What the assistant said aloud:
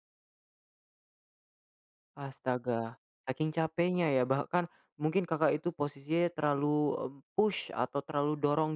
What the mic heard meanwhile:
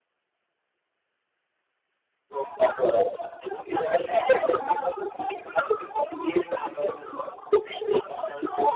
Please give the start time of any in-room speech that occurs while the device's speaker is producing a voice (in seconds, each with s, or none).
none